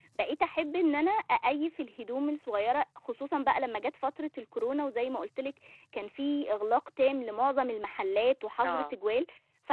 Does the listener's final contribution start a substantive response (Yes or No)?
No